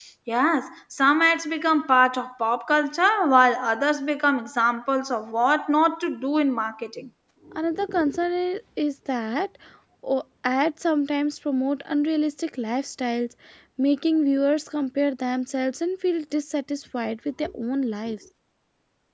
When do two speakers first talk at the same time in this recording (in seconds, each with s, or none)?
none